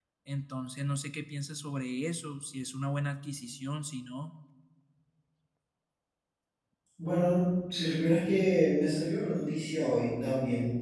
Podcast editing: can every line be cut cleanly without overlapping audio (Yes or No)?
Yes